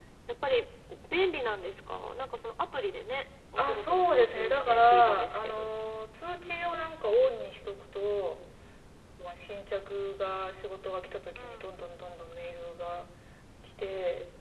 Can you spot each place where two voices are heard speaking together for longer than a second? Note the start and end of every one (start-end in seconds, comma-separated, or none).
3.6-5.7